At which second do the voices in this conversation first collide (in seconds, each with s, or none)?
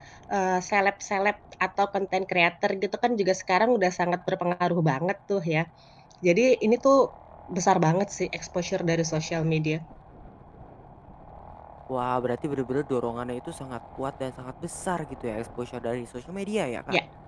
none